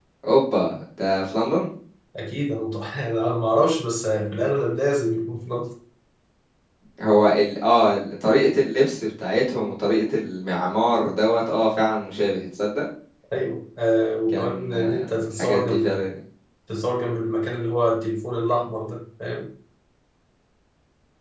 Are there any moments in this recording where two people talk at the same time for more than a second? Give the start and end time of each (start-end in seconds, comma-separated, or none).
14.3-16.0